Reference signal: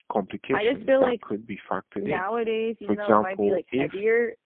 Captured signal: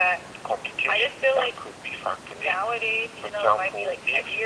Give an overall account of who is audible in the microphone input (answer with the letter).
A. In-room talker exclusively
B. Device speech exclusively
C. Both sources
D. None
B